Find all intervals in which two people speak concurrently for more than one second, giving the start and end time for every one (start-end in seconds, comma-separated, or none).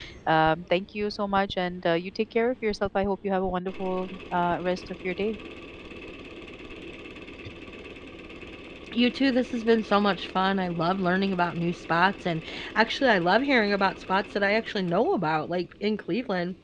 none